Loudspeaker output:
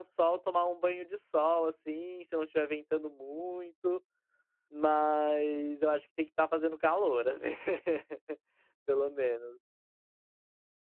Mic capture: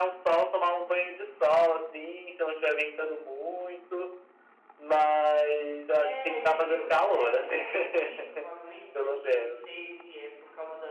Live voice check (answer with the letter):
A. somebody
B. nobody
A